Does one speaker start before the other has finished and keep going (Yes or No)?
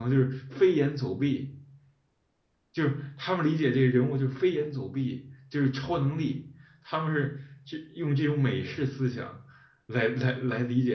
No